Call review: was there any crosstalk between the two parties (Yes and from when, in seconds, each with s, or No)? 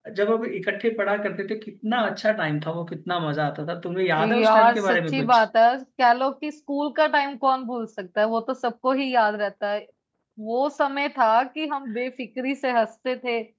Yes, from 4.2 s